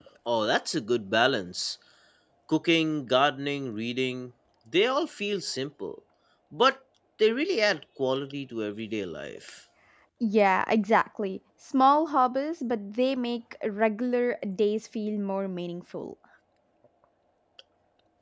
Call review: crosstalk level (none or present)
none